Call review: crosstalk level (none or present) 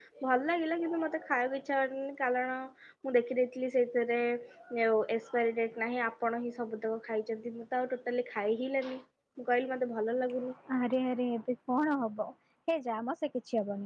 none